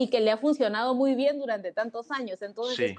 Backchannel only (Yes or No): Yes